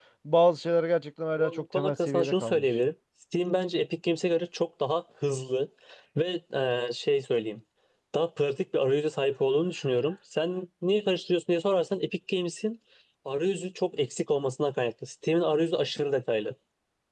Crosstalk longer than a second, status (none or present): present